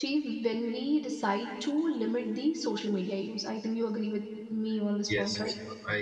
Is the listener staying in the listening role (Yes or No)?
No